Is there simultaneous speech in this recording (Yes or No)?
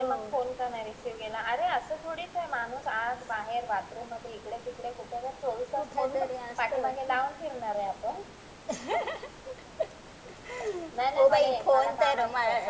Yes